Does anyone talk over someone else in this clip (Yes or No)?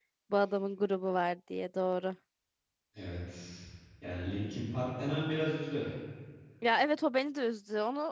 No